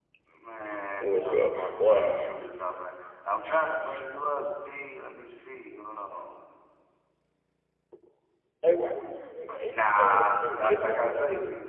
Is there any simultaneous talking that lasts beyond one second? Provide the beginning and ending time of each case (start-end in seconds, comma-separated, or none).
1.0-2.4, 9.7-11.2